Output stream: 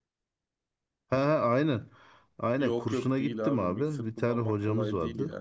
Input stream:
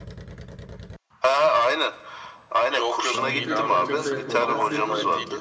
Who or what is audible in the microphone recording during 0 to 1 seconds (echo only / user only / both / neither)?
neither